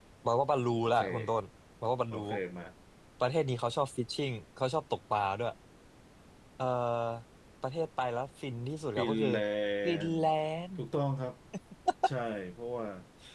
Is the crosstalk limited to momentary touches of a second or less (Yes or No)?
Yes